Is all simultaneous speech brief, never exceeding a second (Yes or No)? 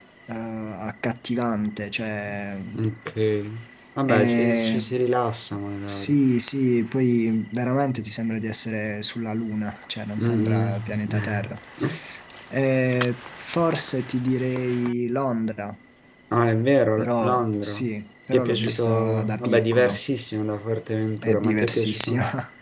No